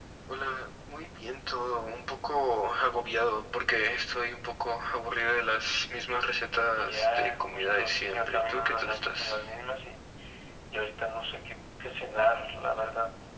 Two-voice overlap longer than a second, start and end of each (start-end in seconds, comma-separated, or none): 6.8-9.4